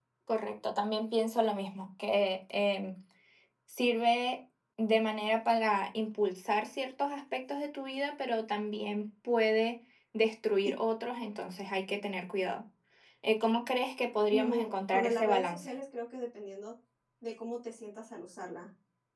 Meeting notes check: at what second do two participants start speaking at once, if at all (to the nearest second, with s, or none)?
14 s